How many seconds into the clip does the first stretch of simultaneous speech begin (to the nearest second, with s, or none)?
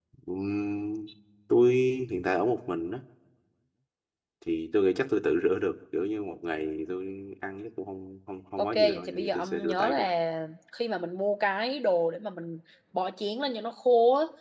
9 s